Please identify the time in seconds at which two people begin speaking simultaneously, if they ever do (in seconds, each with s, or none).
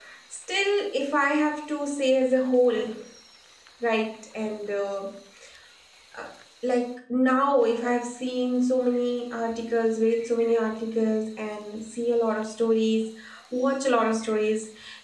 none